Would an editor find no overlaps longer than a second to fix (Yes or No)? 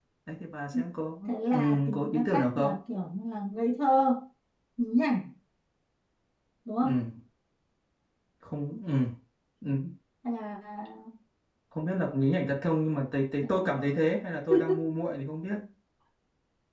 No